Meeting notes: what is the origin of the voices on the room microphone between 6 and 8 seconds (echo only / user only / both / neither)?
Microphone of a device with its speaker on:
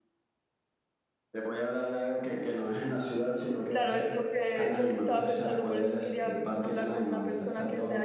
both